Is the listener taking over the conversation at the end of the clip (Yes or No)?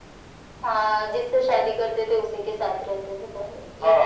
Yes